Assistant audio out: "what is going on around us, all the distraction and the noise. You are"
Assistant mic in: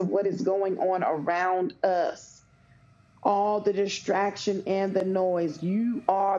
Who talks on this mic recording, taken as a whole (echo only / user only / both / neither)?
echo only